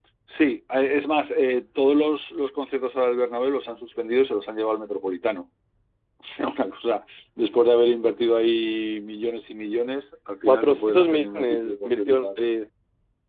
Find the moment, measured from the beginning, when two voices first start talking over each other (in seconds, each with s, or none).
10.5 s